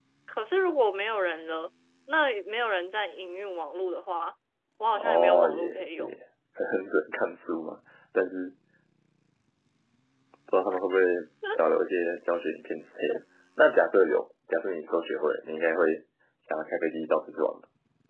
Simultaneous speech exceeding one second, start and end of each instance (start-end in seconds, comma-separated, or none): 4.9-6.2